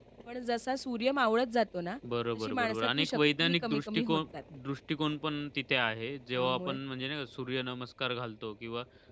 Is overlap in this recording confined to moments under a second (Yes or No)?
No